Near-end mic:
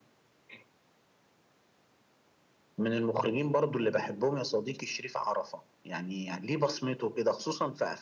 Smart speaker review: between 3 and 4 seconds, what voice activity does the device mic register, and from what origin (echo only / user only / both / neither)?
echo only